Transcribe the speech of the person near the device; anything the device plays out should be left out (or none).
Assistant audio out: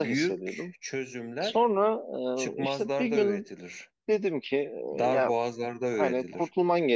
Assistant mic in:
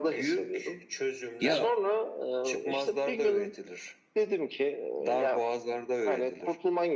Ya